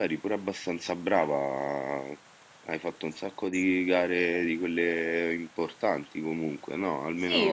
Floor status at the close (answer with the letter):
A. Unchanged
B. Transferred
B